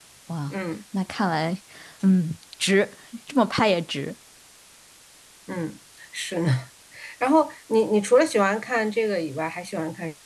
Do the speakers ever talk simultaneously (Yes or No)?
No